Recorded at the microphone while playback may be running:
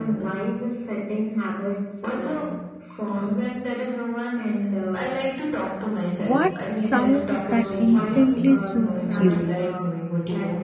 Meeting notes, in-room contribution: present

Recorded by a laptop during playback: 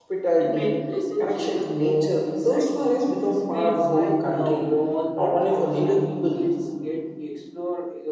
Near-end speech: present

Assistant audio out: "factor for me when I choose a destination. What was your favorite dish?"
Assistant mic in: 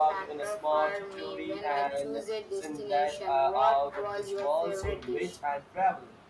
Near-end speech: present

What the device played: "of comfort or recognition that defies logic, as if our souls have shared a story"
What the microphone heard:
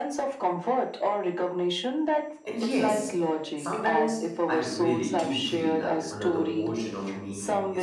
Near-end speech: present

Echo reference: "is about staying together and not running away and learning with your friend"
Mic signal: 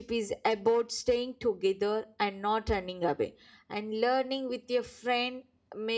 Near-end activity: none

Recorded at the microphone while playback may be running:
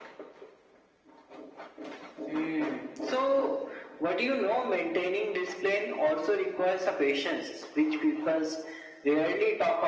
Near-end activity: none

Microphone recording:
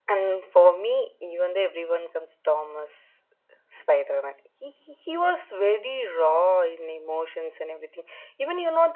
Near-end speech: none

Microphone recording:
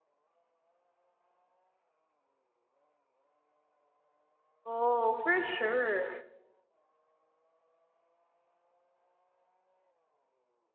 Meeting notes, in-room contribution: present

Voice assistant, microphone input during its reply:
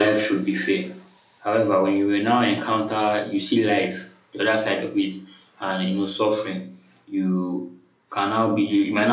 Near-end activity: none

